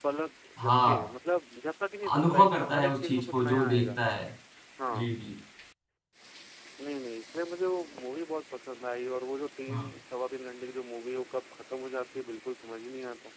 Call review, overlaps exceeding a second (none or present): present